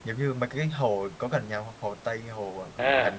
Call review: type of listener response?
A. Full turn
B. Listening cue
A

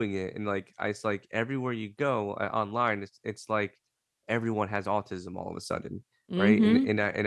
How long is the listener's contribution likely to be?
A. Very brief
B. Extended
A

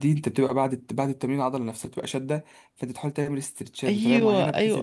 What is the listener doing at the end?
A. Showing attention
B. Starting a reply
B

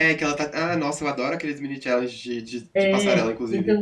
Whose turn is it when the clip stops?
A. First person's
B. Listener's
B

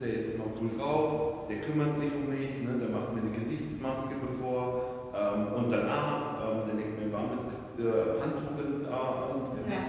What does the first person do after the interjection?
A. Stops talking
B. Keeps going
B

